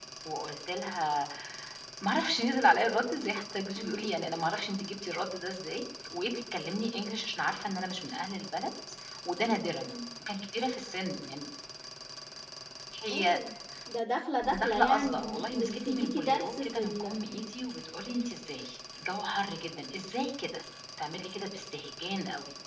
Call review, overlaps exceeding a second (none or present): present